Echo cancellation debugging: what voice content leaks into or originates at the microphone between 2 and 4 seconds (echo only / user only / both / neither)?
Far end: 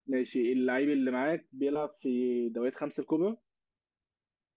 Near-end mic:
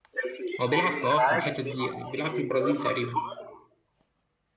both